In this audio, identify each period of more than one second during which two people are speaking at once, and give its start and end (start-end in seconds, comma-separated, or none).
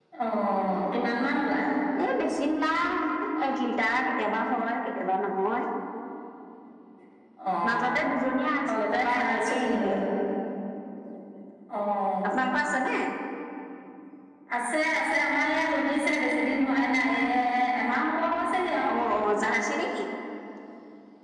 8.7-9.9